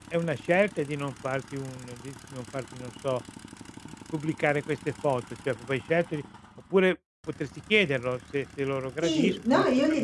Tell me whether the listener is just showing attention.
No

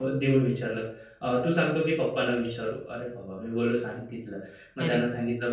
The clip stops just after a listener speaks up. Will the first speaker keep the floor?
Yes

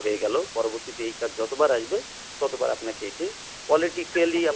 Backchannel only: Yes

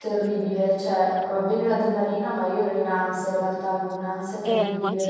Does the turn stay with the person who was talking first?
No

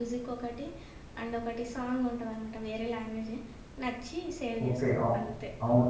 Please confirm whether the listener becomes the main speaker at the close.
Yes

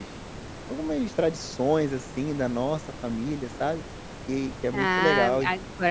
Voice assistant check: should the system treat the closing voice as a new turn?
Yes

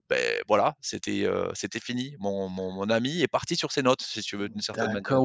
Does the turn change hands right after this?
Yes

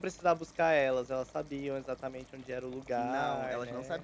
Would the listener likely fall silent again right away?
No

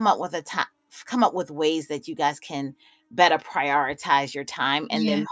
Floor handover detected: No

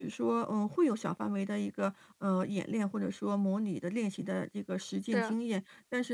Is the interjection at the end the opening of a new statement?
No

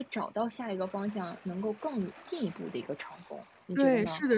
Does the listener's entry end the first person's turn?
Yes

